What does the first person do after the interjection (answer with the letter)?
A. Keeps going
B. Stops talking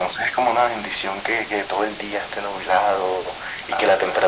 A